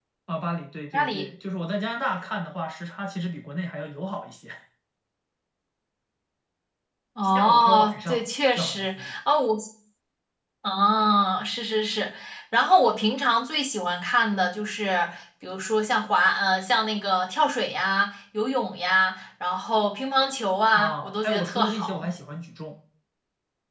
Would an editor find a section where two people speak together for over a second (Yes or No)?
Yes